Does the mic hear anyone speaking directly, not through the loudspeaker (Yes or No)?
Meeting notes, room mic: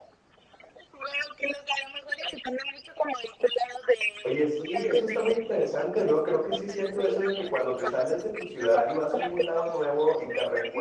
Yes